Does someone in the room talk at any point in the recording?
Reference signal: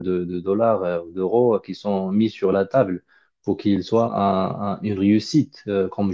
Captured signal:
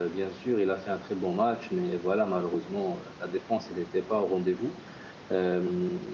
Yes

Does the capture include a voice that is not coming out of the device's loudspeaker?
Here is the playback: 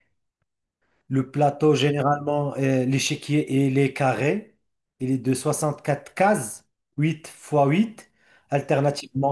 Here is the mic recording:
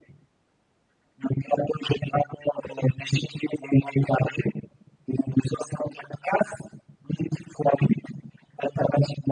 No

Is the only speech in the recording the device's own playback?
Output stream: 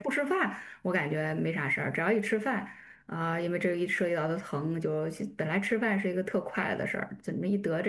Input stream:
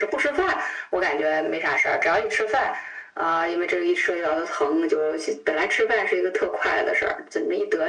Yes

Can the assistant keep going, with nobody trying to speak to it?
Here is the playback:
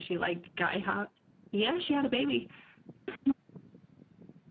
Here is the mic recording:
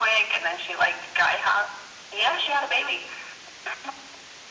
Yes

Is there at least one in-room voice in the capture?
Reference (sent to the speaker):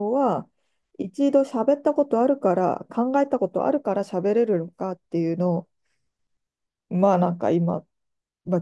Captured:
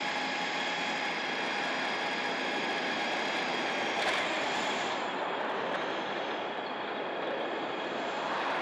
No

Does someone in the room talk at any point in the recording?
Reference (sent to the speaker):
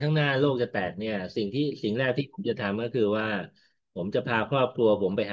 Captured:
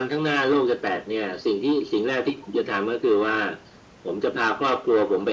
No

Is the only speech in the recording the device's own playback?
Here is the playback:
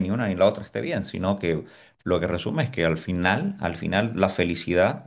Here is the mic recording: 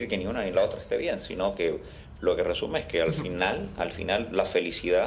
No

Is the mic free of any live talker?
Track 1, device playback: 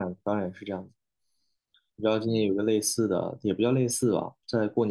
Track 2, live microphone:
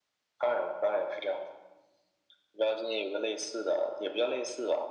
Yes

